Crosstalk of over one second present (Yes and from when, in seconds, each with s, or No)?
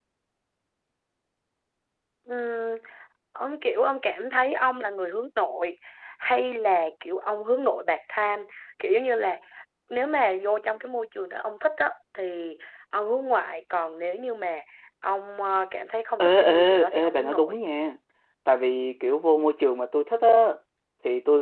Yes, from 16.2 s